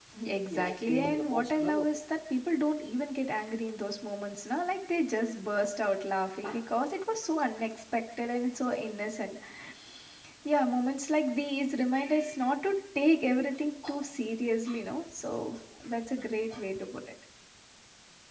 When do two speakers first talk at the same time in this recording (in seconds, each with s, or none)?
0.5 s